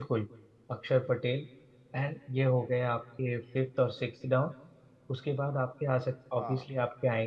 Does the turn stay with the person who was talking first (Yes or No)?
Yes